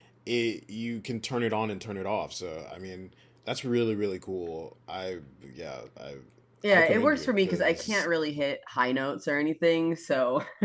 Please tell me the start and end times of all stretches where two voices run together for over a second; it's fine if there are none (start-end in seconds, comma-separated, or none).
6.7-8.1